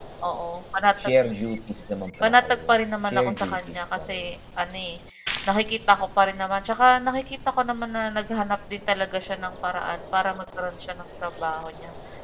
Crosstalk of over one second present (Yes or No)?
Yes